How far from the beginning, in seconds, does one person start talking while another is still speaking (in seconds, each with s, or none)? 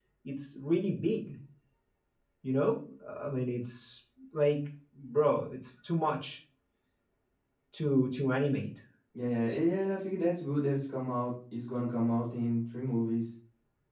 none